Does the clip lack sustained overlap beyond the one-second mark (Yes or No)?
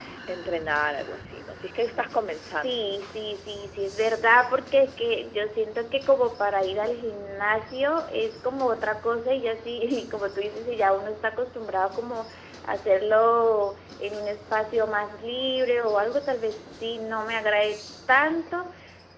Yes